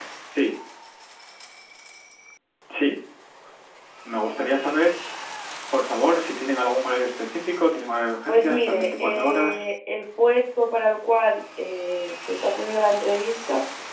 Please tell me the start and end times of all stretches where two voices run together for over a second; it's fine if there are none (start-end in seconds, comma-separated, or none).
8.3-9.6